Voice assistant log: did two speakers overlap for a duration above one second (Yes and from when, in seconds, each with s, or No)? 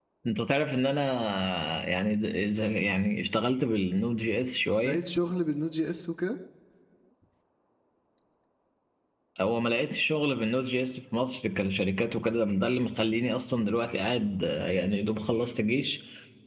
No